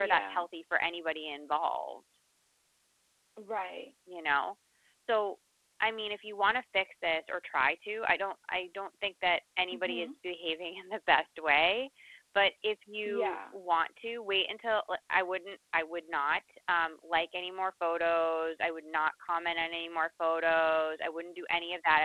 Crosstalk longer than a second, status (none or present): none